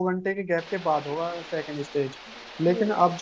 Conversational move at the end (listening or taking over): listening